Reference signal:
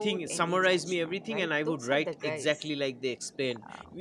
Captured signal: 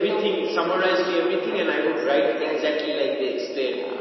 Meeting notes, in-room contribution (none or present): none